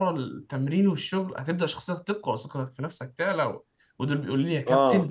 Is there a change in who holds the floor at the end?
No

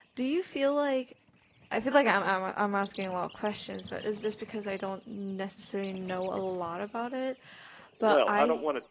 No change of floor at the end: No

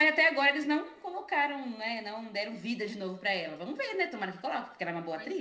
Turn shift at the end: Yes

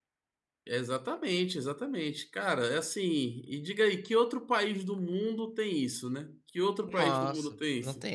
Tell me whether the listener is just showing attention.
No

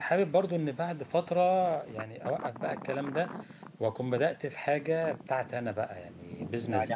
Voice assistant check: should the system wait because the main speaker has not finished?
No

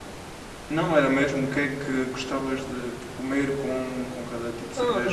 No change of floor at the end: No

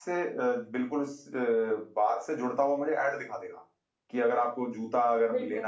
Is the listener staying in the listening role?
Yes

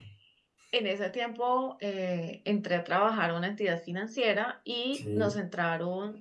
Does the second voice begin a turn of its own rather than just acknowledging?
No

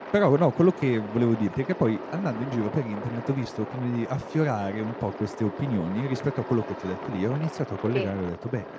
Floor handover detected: No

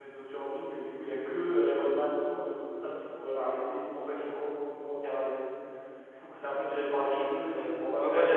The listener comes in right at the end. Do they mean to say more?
Yes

